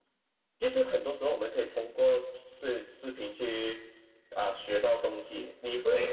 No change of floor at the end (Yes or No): Yes